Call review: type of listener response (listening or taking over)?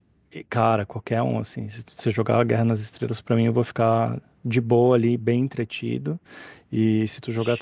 listening